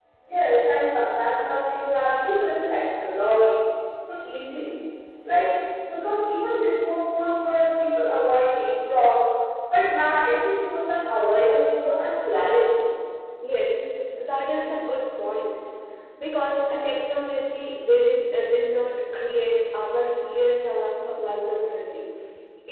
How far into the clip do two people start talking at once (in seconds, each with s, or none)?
none